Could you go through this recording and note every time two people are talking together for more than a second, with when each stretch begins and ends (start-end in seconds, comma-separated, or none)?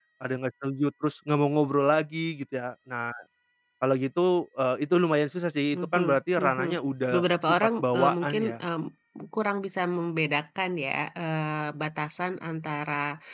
7.1-8.6